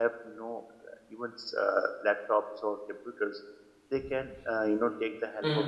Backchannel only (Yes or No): Yes